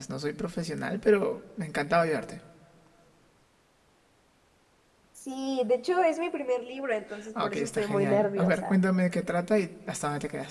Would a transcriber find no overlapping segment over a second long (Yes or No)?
No